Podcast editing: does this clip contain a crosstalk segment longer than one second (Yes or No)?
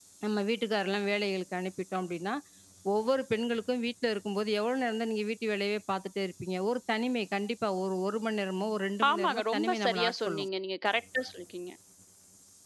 Yes